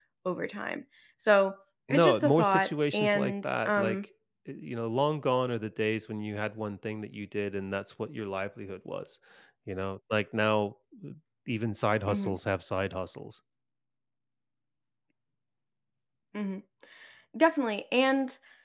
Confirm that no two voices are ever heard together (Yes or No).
No